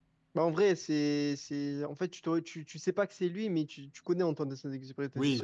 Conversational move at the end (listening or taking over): taking over